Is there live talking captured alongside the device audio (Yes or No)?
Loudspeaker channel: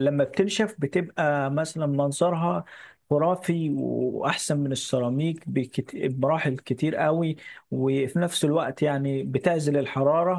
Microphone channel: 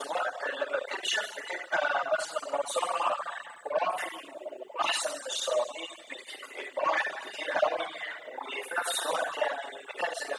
No